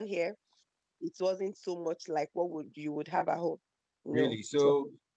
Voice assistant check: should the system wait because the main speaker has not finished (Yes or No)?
No